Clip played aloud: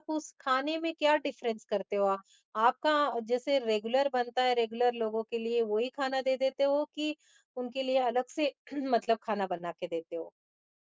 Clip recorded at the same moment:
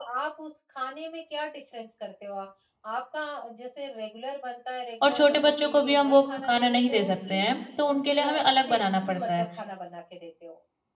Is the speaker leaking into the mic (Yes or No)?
Yes